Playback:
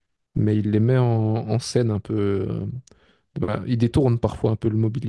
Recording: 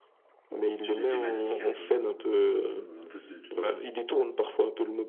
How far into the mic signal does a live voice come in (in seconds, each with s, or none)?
0.8 s